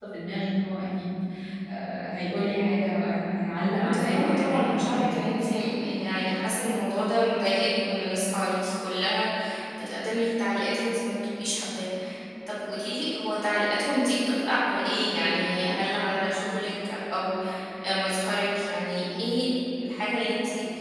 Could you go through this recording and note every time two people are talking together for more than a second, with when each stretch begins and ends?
3.8-5.4

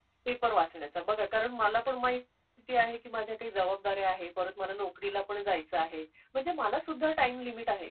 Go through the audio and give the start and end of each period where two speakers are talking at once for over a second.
none

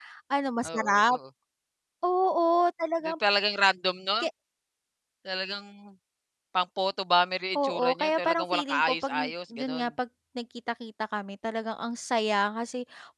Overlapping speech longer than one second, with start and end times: 7.6-9.9

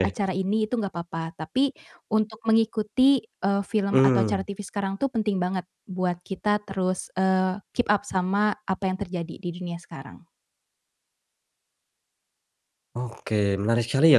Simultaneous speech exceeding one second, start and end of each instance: none

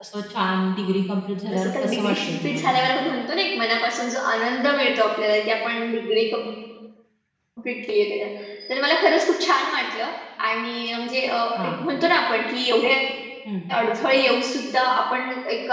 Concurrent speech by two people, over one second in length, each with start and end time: 1.5-2.7

